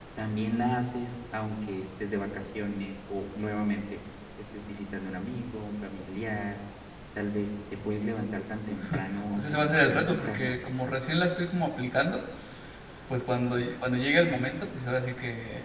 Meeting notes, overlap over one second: present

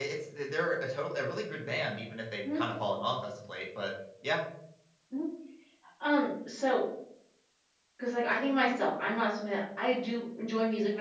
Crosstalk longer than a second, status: none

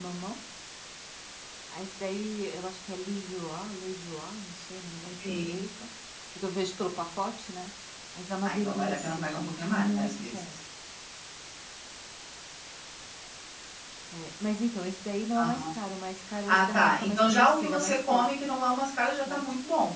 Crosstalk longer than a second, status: present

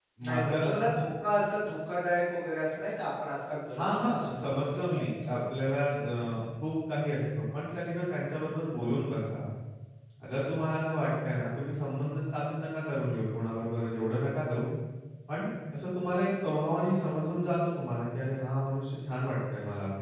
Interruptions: present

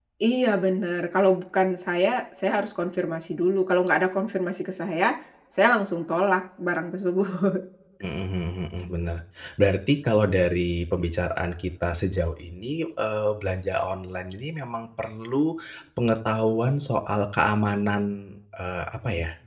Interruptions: none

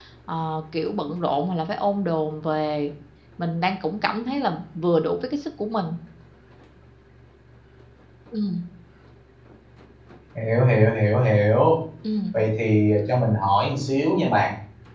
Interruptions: none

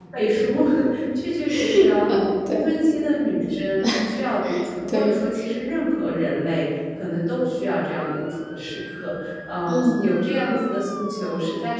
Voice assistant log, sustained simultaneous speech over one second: none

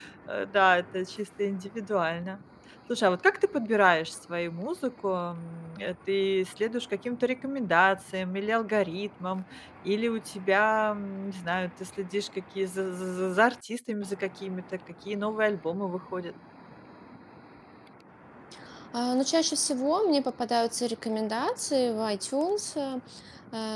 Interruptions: none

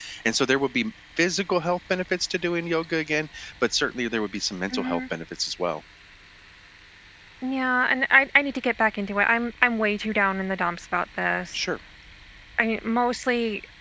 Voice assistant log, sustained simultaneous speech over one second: none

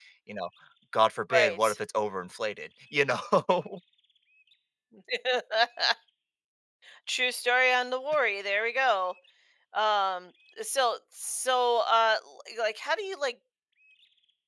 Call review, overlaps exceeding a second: none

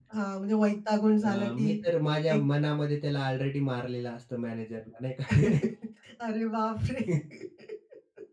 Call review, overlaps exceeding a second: none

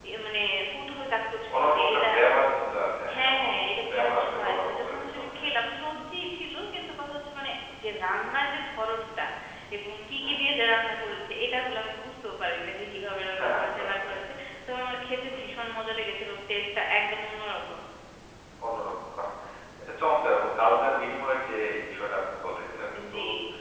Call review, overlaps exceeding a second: present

